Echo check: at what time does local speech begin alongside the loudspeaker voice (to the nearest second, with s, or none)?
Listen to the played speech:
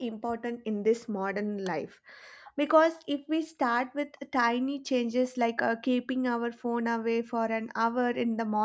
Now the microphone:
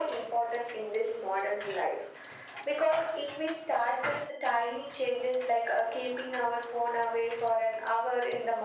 none